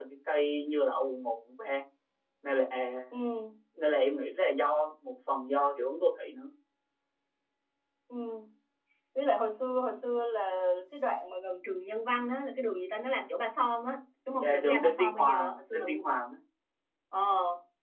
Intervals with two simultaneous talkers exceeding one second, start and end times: 14.4-15.9

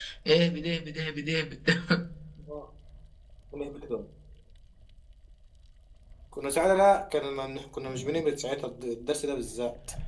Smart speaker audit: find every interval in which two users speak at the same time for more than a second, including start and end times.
none

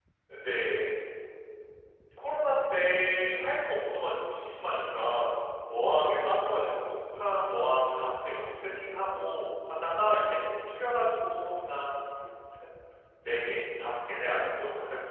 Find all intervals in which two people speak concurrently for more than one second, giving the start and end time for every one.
none

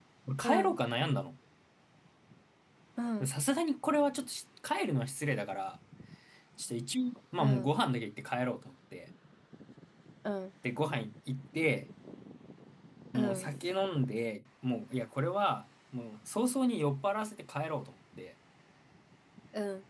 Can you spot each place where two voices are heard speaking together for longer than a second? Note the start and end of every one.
none

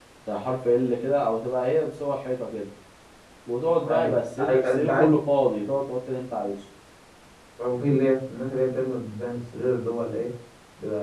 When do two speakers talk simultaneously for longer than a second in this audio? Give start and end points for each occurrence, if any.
3.9-5.1

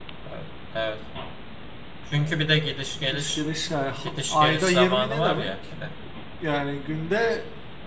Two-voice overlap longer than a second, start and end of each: 4.0-5.5

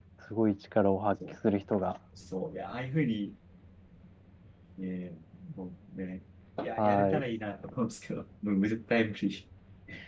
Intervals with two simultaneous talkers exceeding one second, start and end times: none

